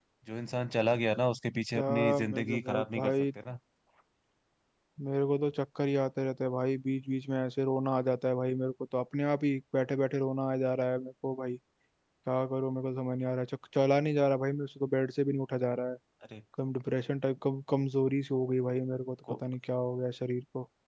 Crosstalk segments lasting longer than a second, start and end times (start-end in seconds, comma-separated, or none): 1.8-3.1